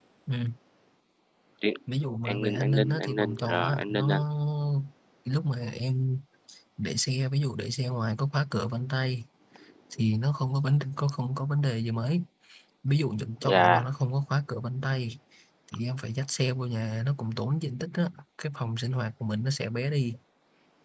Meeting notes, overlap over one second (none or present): present